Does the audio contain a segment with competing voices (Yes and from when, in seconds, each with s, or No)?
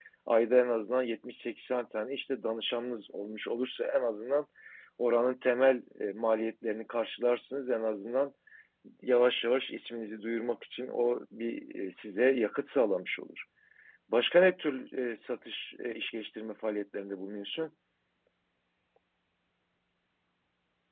No